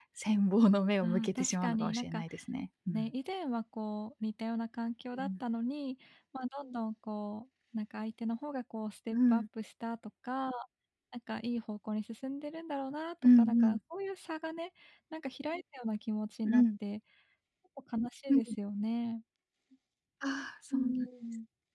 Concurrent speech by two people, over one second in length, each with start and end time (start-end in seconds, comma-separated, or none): 1.0-2.2